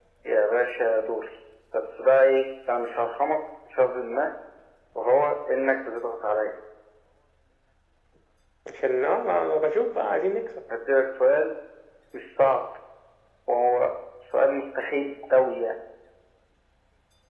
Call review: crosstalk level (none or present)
none